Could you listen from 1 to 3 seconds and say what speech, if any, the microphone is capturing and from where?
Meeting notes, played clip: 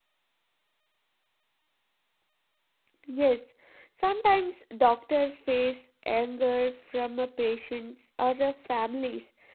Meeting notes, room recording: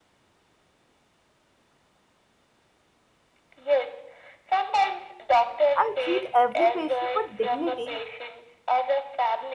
neither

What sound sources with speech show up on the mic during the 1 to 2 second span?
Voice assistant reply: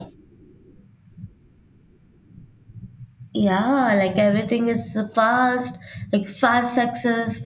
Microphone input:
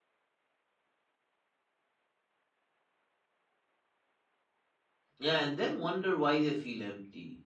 neither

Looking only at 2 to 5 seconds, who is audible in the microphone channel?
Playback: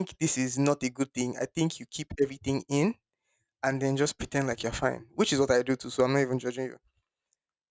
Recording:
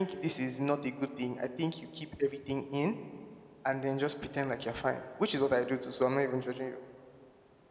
echo only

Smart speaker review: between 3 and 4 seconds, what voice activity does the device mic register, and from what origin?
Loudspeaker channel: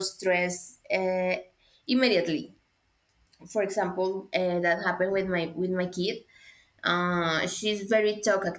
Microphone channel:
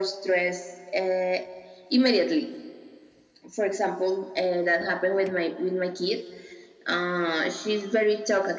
echo only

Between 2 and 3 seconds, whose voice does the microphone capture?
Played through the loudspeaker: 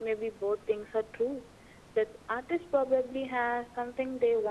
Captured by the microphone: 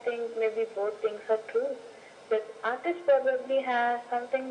echo only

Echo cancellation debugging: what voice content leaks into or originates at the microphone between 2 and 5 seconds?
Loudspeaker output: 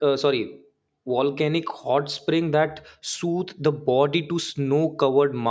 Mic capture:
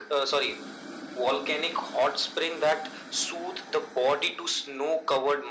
echo only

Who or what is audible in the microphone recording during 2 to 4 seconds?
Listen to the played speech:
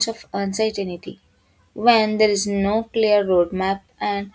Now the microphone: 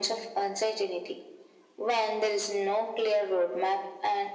echo only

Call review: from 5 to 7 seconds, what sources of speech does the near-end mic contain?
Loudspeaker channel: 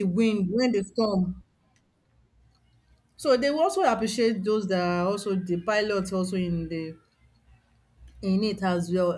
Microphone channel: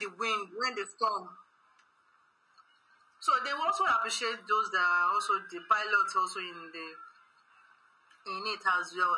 echo only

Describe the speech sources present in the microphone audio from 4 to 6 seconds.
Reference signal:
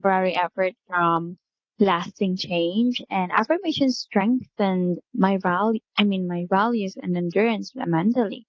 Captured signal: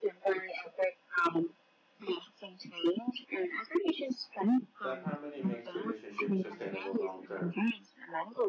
both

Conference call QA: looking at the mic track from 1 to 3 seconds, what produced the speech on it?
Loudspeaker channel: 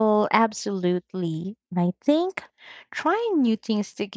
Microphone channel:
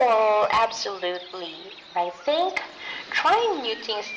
echo only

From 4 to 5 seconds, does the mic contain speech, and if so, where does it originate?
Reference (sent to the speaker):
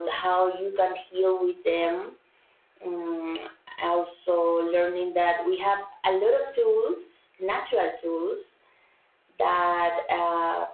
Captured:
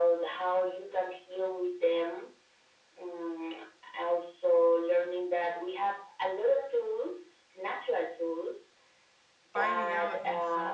echo only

